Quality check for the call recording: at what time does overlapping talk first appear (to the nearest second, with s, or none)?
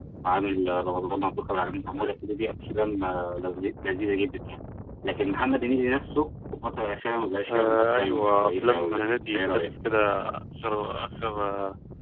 7 s